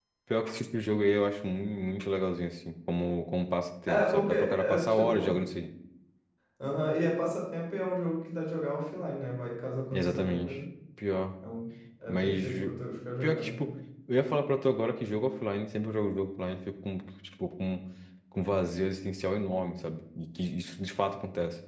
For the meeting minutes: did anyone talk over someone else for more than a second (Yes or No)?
Yes